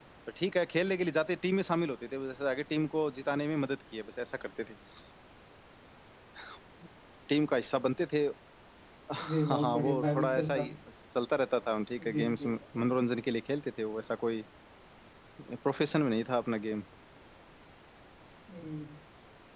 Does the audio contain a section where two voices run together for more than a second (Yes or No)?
Yes